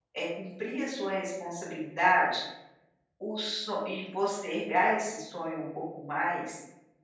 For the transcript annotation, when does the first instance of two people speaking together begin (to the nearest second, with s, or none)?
none